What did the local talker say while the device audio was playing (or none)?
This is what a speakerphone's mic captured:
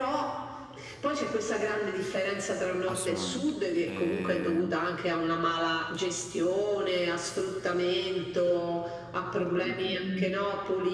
Assolutamente. E,